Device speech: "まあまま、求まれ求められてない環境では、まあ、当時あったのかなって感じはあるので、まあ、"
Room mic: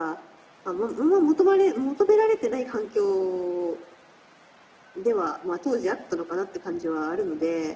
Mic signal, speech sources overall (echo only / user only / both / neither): echo only